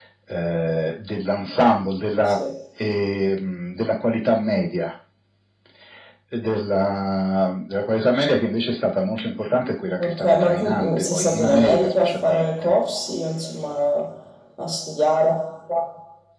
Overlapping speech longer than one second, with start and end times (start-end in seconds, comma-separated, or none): 10.0-12.7